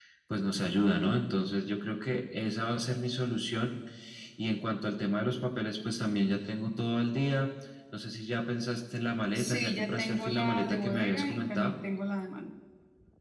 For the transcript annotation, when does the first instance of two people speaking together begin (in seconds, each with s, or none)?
9.4 s